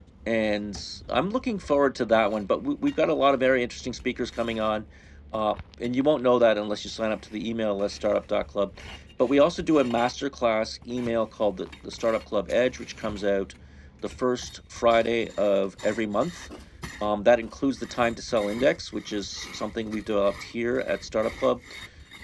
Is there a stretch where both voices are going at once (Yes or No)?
No